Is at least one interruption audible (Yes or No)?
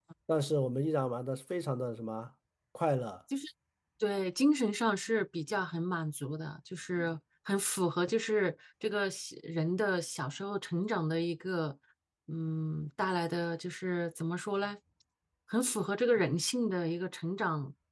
No